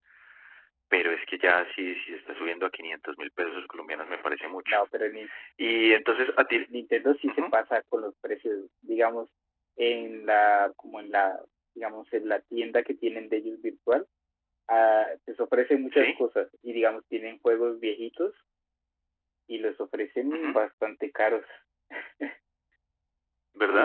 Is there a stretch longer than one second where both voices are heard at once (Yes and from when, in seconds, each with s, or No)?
No